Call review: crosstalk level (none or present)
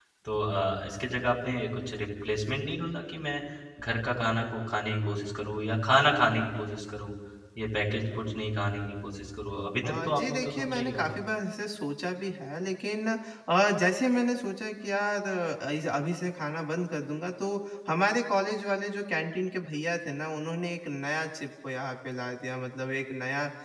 present